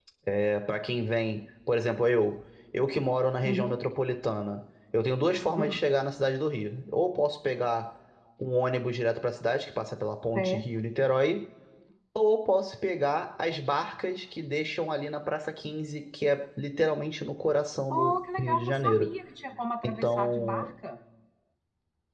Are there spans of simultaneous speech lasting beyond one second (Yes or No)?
Yes